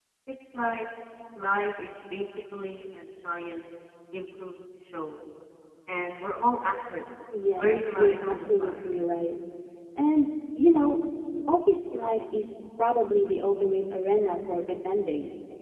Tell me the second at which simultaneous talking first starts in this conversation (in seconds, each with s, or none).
7.3 s